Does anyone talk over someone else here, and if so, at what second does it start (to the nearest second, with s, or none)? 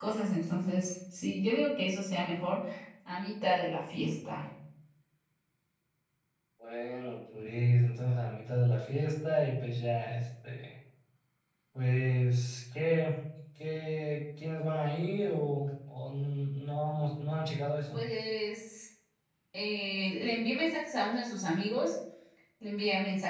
none